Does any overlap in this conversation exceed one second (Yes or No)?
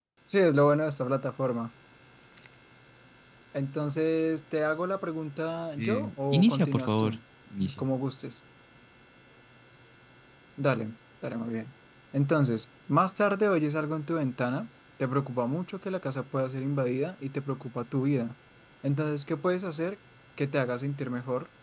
Yes